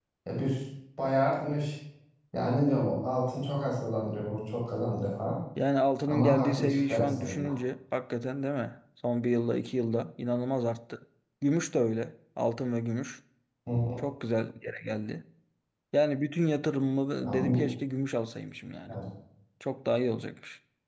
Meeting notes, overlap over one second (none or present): present